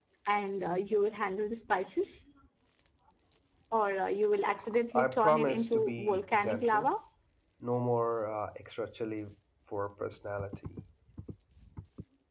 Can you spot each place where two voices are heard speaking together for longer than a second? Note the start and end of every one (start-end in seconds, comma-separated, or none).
5.0-6.9